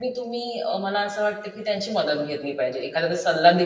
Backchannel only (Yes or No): Yes